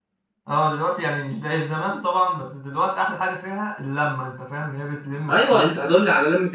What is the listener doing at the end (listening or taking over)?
taking over